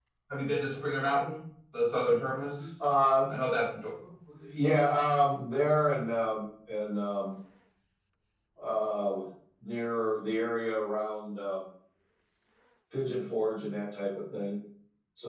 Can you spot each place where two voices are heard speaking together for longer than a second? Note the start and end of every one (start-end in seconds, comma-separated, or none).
none